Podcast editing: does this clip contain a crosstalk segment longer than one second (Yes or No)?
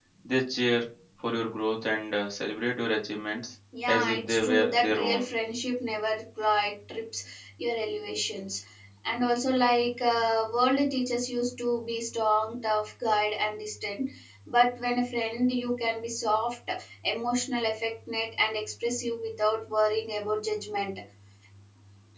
Yes